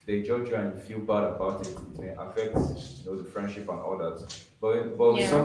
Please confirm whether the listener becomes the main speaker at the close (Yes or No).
No